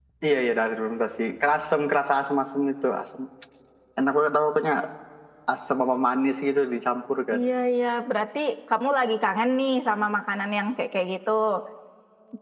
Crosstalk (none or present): none